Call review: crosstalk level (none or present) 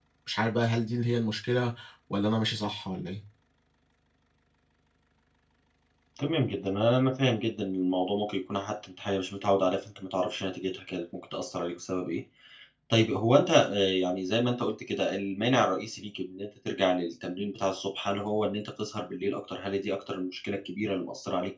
none